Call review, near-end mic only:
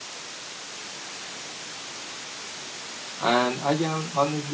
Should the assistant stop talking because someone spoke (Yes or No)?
Yes